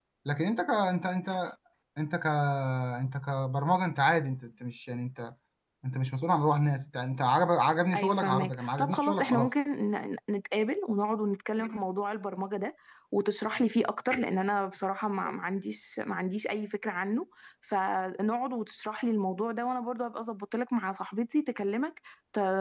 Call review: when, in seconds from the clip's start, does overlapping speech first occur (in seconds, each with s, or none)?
7.9 s